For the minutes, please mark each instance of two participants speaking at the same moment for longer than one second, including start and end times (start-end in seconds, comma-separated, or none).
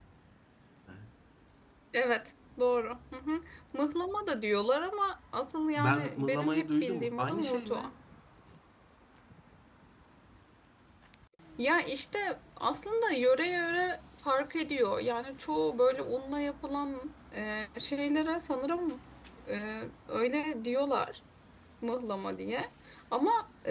5.8-7.9